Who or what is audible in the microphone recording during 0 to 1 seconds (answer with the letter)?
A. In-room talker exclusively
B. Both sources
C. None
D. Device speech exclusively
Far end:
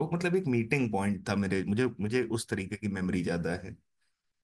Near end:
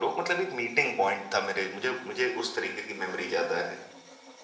D